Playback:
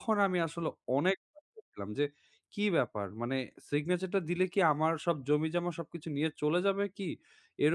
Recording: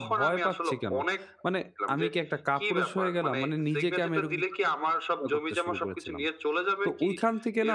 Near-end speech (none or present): present